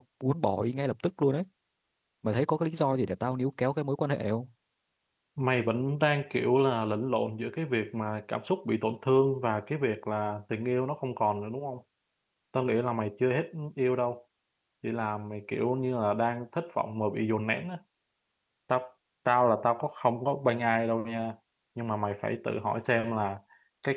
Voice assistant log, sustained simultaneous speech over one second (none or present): none